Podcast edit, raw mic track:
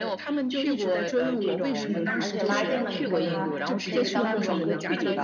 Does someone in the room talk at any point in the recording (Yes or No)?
Yes